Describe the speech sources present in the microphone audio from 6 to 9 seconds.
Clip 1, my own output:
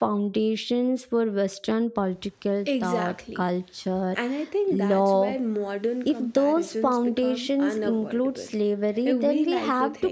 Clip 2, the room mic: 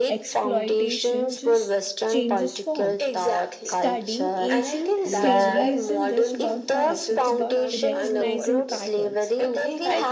both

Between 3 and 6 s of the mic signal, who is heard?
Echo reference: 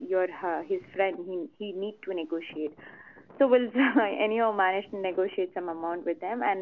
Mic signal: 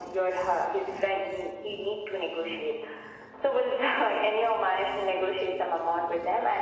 echo only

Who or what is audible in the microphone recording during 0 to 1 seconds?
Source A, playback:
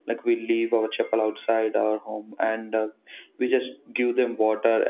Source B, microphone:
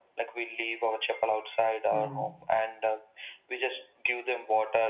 echo only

